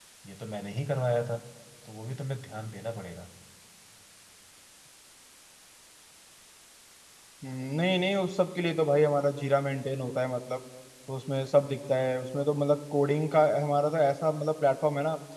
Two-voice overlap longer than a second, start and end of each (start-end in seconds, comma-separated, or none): none